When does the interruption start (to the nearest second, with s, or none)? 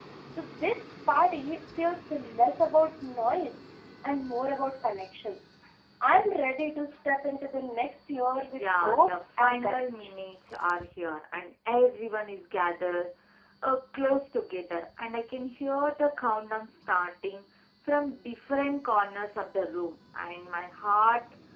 8 s